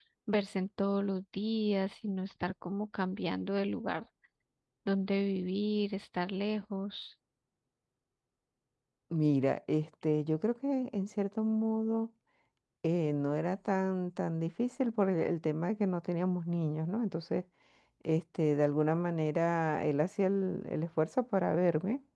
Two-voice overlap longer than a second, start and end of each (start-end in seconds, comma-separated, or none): none